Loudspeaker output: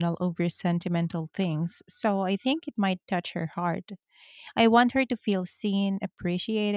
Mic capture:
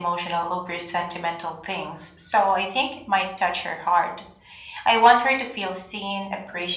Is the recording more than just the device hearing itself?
No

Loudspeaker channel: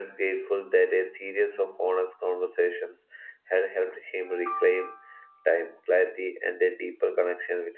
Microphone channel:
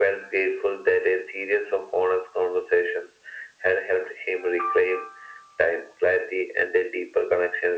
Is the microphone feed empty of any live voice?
Yes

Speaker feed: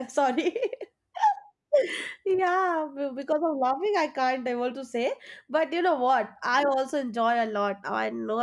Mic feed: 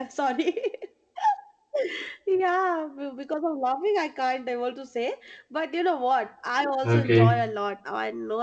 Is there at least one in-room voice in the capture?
Yes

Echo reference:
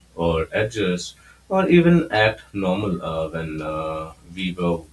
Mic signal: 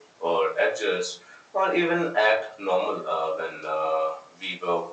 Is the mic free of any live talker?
Yes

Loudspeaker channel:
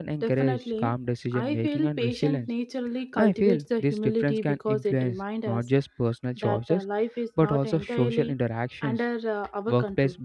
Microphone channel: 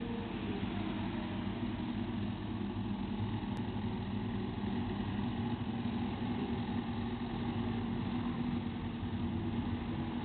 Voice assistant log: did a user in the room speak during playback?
No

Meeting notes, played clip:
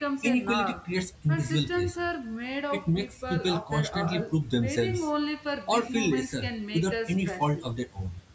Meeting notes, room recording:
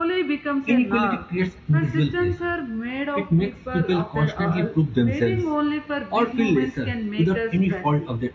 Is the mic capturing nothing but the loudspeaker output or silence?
Yes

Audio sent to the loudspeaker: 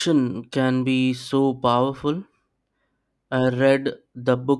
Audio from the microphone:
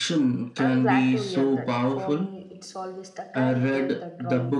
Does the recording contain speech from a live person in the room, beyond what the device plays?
Yes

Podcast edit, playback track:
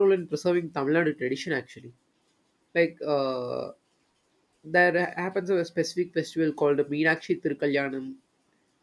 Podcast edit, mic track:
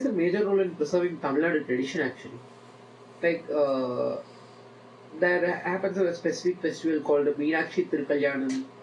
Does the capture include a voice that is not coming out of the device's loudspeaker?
No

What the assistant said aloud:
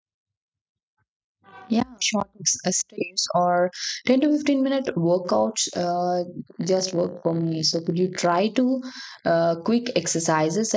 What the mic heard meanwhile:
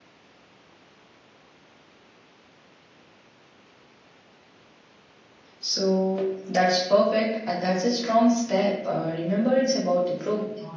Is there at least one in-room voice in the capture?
Yes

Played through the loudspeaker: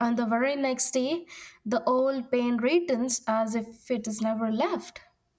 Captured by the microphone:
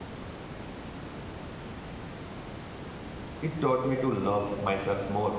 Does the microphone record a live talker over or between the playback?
Yes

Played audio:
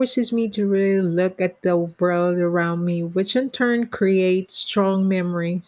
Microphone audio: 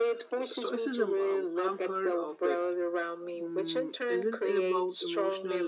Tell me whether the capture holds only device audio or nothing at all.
No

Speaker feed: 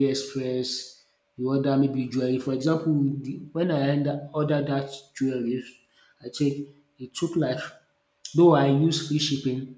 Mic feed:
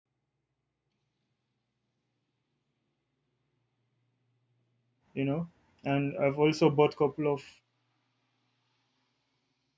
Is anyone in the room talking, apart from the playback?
Yes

